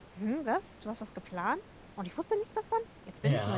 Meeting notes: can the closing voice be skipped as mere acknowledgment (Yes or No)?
No